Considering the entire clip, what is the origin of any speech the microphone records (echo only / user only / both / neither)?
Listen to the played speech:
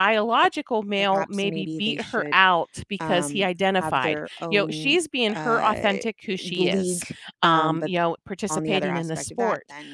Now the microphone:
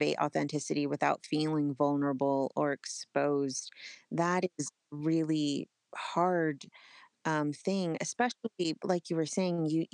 user only